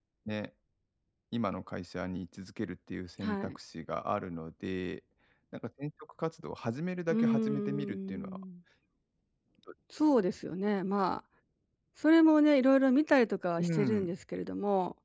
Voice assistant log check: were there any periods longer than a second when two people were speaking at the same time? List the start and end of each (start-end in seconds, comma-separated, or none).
7.1-8.4